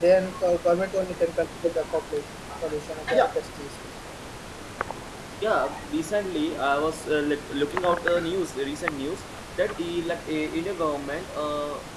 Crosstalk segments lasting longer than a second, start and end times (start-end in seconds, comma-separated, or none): none